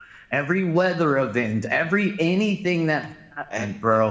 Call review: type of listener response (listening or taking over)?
listening